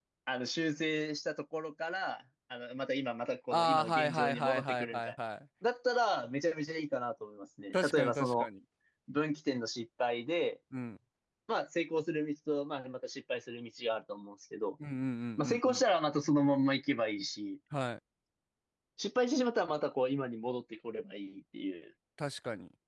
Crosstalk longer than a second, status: present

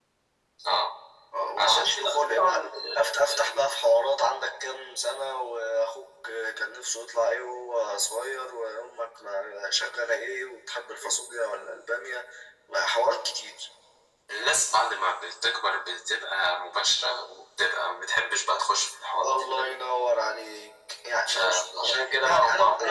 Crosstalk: present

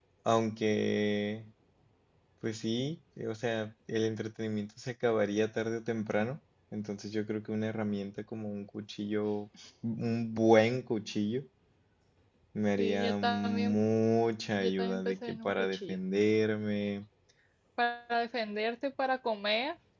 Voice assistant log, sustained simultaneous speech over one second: present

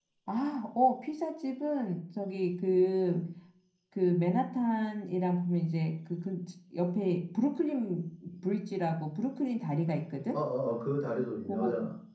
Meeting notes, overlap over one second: none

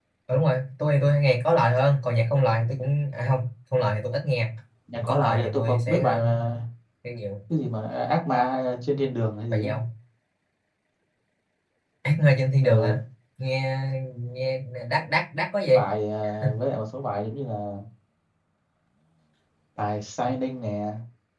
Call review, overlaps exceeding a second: present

